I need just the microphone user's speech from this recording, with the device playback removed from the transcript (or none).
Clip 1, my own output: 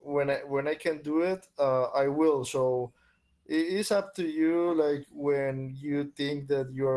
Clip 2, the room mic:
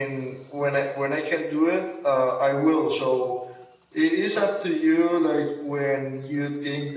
none